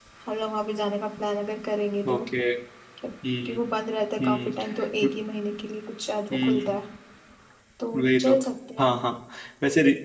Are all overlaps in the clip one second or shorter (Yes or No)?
Yes